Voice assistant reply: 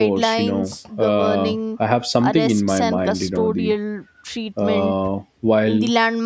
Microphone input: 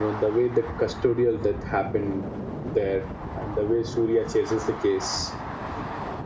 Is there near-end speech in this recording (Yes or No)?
Yes